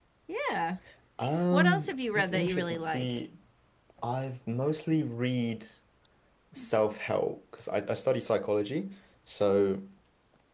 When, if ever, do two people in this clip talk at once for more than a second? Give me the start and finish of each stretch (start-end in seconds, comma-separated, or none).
1.5-3.1